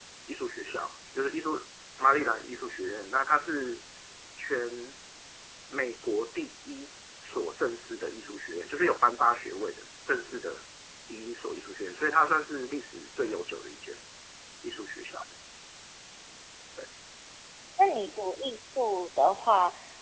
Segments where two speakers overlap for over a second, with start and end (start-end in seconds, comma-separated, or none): none